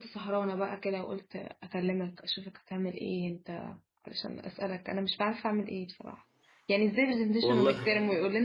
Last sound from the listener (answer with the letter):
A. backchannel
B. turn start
A